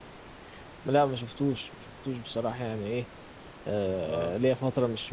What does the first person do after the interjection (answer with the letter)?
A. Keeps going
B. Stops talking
A